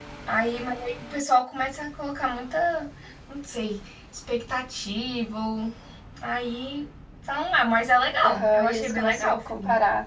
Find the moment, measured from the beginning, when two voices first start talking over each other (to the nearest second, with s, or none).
8 s